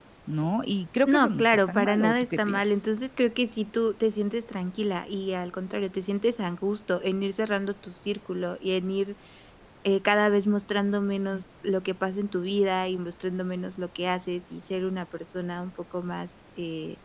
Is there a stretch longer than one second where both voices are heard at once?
Yes, from 1.1 s

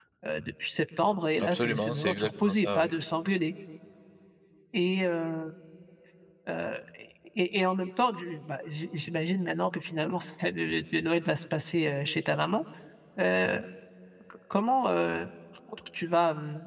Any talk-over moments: Yes, from 1.4 s

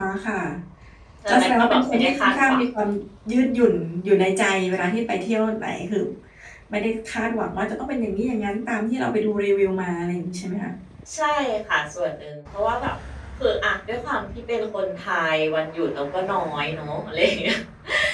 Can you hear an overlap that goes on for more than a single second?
Yes, from 1.3 s

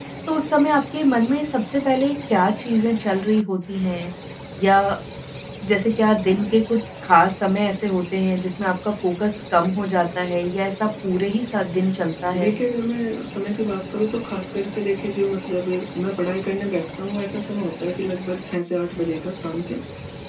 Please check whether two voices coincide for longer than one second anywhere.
No

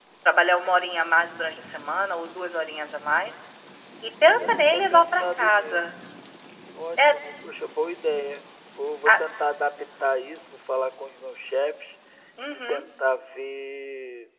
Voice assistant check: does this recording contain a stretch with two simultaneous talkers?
Yes, from 4.3 s

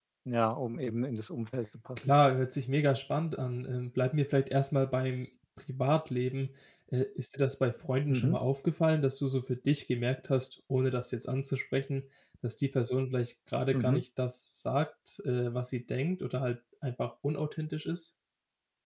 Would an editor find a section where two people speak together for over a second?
No

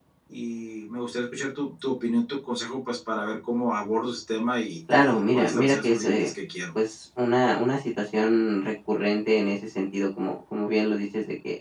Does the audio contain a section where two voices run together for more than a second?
Yes, from 4.9 s

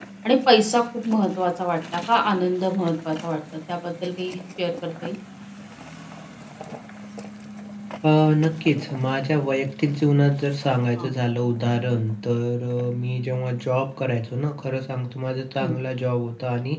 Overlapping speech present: No

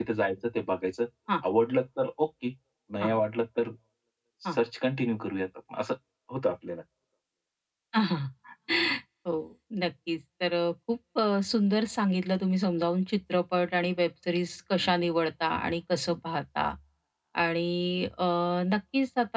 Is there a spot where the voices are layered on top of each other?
No

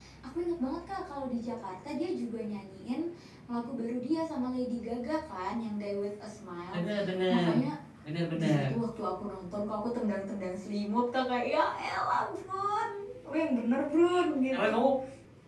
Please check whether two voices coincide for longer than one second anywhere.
No

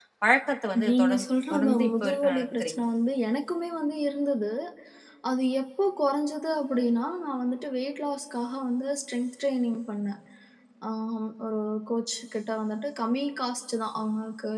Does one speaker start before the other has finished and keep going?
Yes, from 0.9 s

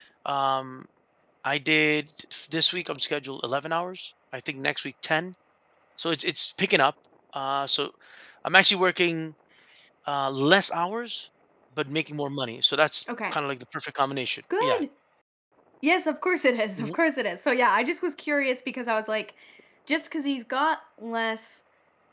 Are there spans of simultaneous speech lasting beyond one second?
No

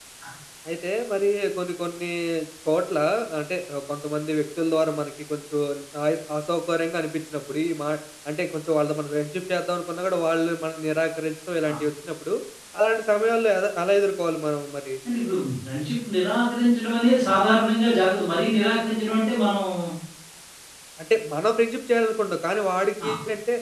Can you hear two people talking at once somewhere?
No

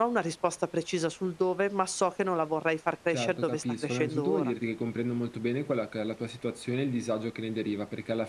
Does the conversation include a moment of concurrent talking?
Yes, from 3.1 s

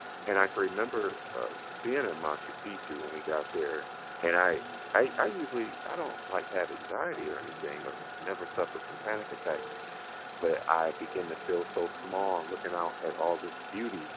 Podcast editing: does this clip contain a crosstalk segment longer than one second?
No

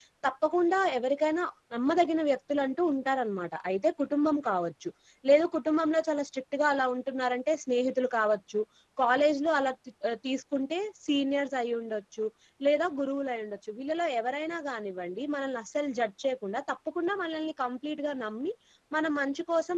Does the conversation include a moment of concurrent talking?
No

